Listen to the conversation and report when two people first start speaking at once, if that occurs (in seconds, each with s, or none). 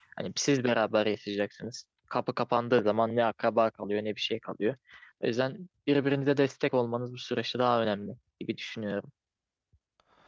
none